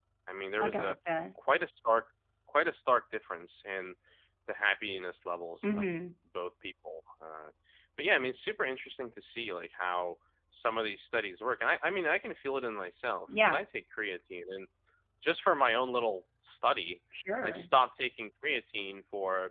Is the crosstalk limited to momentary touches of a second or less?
Yes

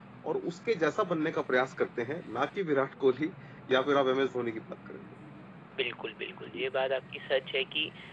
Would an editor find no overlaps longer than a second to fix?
Yes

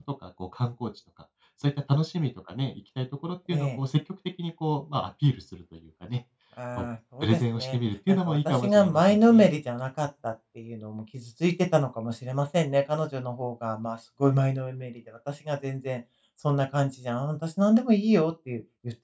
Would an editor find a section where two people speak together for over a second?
Yes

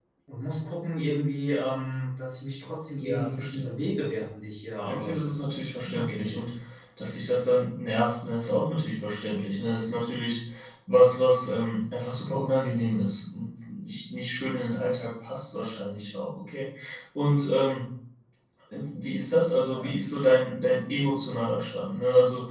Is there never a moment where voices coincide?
No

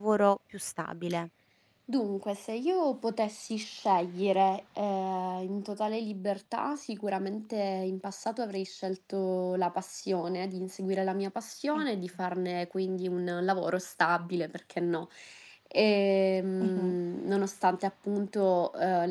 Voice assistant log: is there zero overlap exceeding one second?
Yes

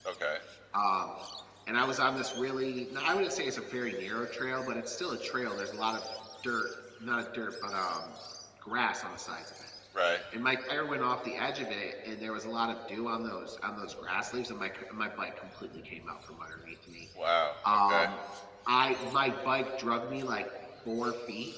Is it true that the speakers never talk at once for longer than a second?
Yes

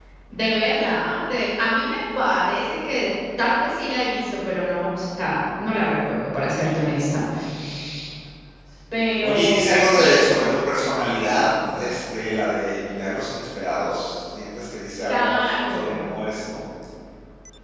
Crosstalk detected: Yes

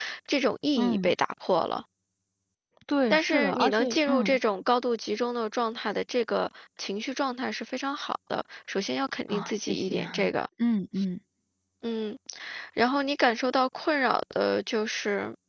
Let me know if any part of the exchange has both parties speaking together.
Yes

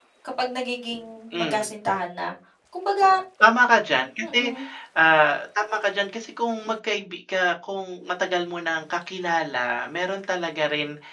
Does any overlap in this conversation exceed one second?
No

